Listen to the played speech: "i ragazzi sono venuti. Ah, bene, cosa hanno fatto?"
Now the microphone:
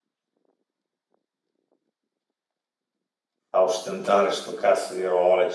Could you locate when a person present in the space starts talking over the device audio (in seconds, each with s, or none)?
3.5 s